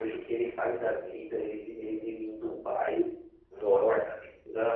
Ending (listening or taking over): listening